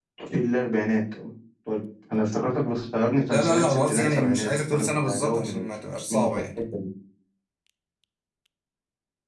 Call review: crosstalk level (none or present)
present